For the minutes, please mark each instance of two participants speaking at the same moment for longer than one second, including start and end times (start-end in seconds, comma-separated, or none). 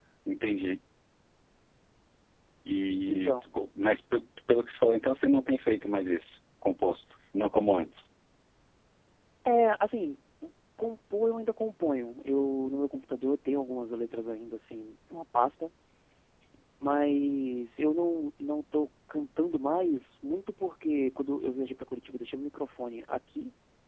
none